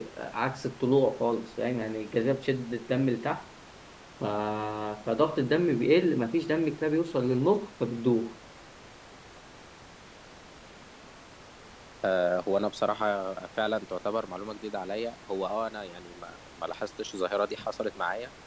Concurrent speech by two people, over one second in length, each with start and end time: none

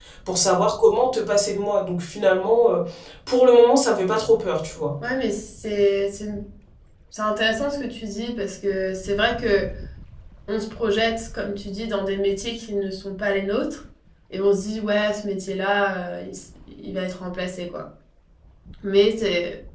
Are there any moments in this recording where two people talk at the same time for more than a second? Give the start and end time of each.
none

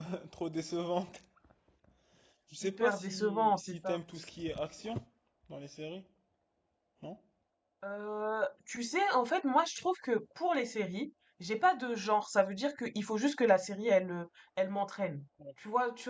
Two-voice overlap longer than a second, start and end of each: 2.6-4.0

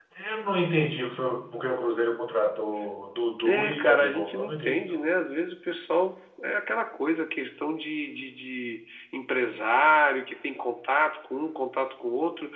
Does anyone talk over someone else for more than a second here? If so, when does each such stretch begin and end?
3.5-4.8

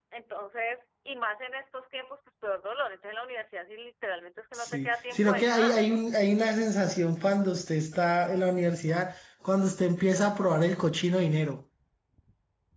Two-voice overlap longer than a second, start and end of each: 4.5-5.9

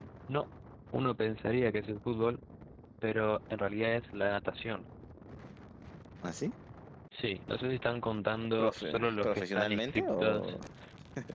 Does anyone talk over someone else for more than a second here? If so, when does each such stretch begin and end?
8.6-10.6

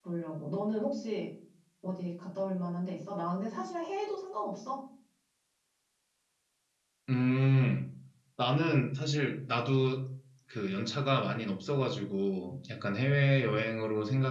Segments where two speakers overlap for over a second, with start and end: none

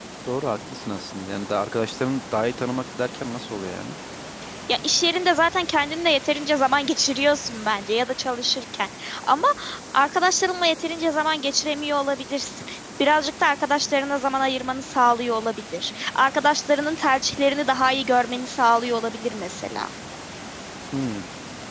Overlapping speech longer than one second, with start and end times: none

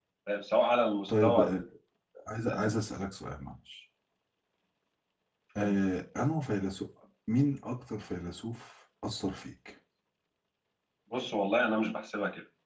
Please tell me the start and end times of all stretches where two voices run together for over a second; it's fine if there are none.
none

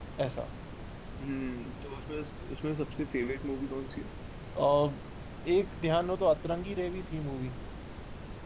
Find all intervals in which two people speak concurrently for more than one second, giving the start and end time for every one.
none

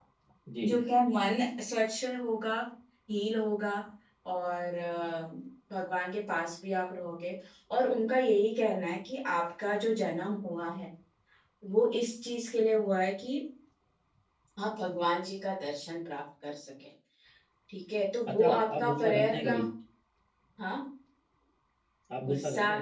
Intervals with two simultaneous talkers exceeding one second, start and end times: 18.3-19.6

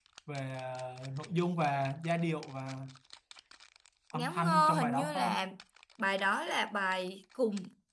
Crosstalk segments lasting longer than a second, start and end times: 4.1-5.4

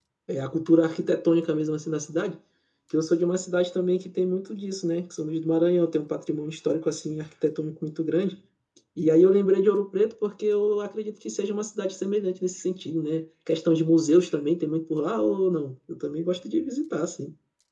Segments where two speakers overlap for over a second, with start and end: none

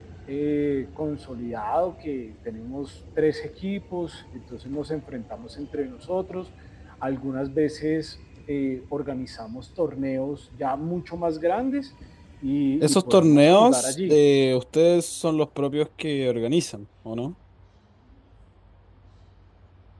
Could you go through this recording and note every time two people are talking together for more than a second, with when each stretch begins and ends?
12.8-14.2

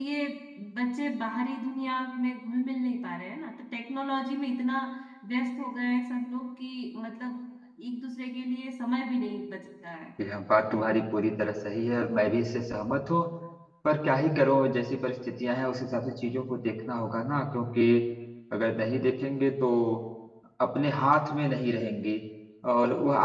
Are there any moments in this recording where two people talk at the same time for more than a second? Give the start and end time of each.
none

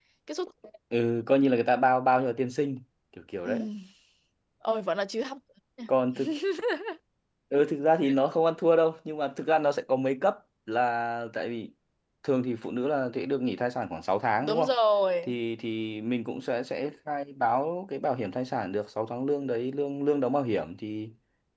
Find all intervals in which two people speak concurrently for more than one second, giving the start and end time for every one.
none

